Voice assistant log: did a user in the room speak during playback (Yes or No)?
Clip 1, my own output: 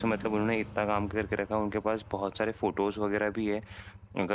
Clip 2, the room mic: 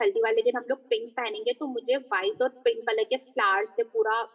Yes